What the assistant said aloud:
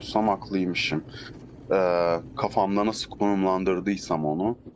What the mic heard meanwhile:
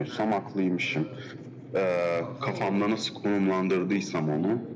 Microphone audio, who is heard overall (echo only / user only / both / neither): both